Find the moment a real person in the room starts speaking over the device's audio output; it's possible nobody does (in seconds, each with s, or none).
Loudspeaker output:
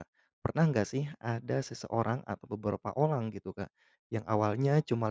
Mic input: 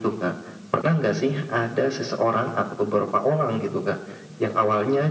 none